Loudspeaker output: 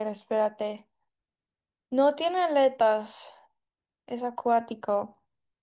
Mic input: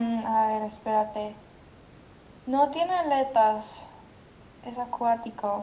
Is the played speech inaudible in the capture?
No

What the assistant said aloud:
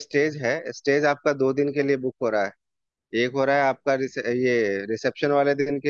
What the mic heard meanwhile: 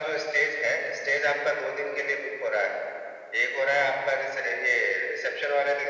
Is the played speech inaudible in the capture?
No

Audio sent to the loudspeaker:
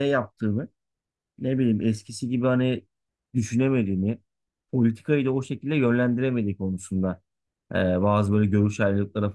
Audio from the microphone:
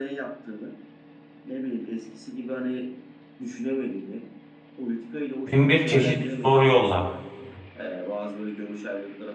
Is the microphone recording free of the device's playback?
No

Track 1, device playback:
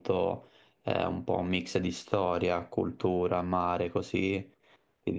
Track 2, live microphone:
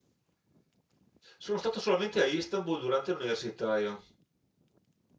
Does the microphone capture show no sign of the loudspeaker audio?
Yes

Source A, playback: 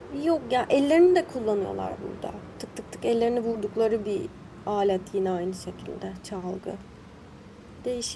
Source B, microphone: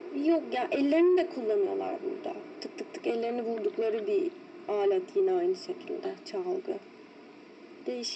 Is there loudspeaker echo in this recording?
Yes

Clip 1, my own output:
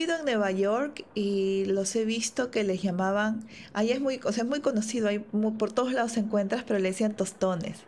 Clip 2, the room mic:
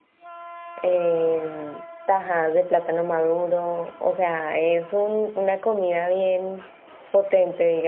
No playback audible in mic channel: Yes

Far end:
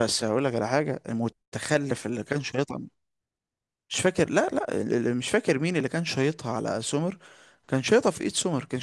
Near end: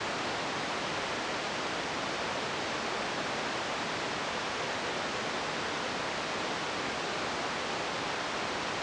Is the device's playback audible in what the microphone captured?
No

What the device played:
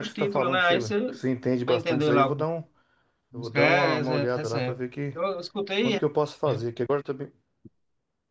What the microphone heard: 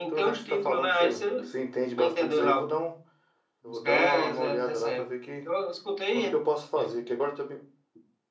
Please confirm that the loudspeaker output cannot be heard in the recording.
No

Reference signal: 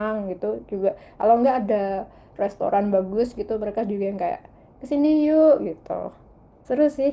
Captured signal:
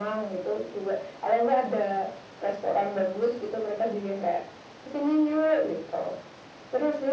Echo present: Yes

